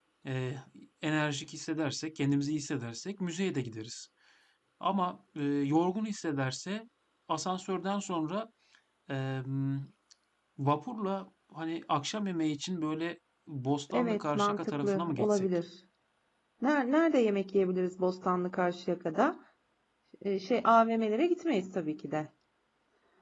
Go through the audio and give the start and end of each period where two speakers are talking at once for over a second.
13.9-15.5

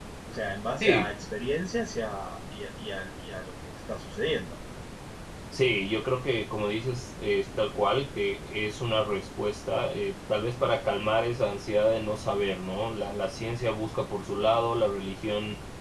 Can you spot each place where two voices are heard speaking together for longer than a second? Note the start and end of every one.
none

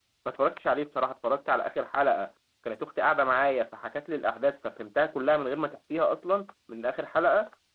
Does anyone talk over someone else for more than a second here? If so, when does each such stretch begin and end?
none

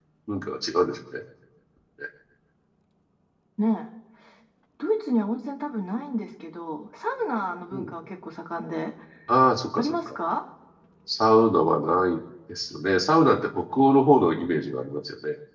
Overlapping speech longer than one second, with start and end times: none

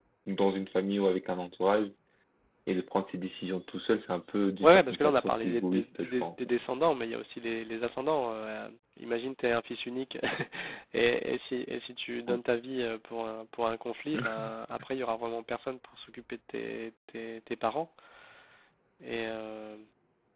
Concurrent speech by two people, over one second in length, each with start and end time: 4.6-6.3

